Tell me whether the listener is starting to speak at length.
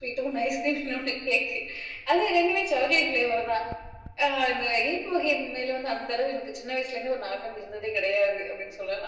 Yes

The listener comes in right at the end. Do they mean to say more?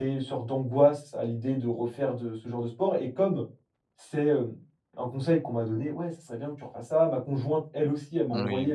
No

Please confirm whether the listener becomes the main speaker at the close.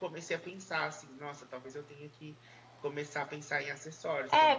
Yes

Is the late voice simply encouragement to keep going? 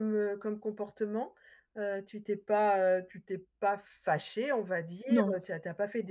Yes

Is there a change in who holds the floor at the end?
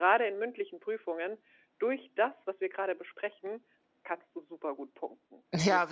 Yes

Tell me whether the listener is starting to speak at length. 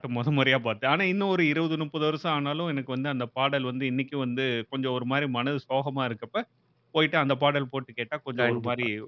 Yes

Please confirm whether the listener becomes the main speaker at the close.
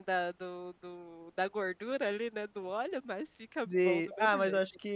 Yes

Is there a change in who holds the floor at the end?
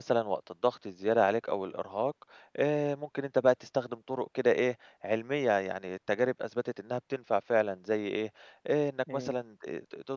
No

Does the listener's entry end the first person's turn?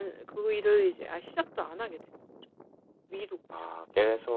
Yes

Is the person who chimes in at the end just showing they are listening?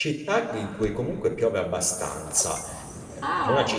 Yes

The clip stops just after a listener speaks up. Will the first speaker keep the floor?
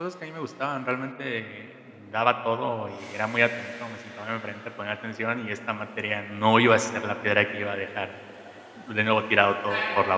No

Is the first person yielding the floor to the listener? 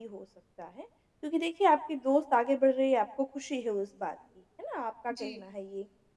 No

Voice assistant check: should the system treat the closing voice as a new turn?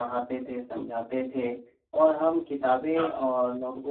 No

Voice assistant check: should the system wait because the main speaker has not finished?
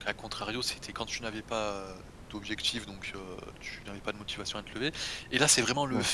Yes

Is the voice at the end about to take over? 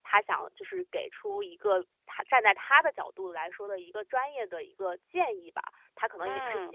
No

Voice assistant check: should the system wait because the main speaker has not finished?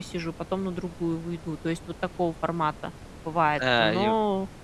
No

